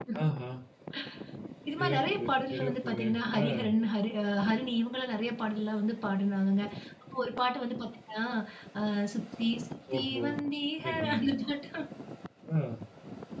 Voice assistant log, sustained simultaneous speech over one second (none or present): present